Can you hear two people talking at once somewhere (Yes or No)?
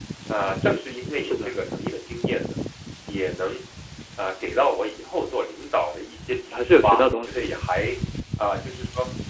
Yes